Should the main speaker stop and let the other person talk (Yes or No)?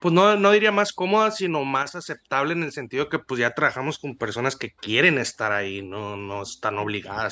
Yes